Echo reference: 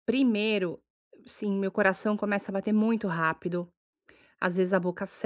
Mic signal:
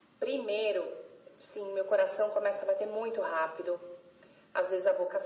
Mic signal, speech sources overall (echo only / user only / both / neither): echo only